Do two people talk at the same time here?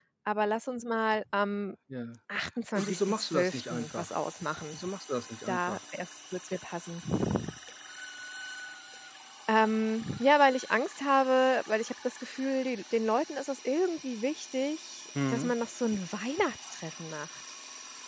Yes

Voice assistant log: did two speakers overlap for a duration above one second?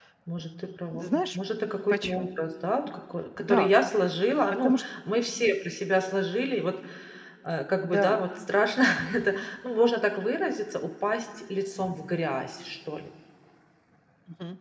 No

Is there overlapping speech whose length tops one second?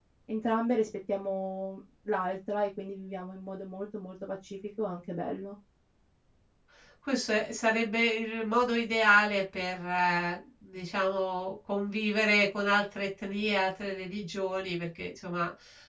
No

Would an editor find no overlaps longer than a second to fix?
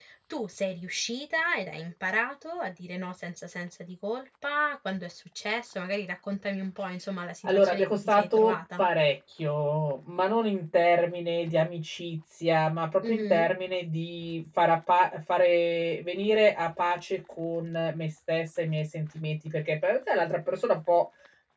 No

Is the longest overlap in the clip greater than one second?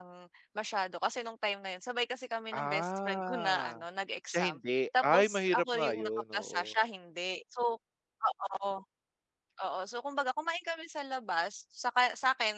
Yes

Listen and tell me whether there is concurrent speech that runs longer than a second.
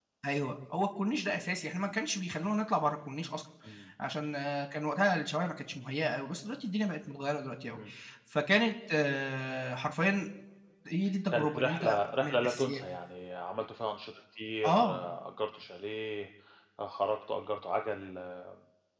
Yes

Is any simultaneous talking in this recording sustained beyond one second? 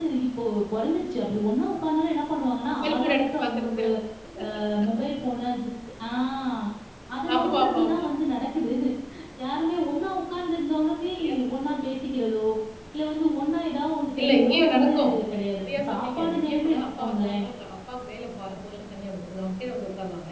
Yes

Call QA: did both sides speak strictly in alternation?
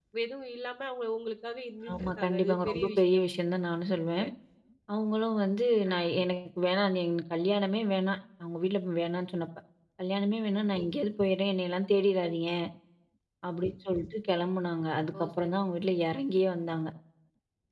No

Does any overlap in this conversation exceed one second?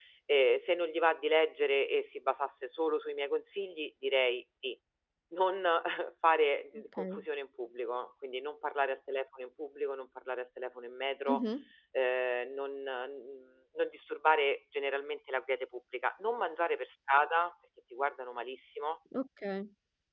No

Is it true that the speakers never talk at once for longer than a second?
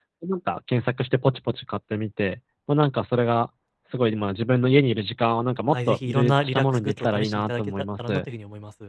No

